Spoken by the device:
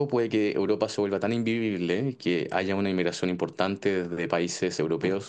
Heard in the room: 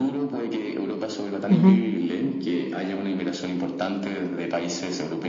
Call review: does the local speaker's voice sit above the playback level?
Yes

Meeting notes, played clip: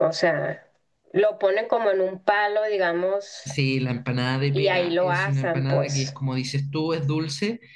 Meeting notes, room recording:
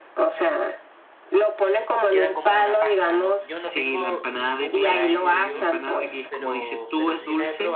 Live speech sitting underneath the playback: Yes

